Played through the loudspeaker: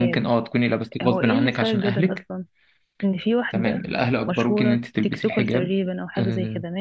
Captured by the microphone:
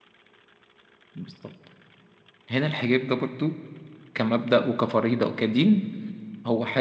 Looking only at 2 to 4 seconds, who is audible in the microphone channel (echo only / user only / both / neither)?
user only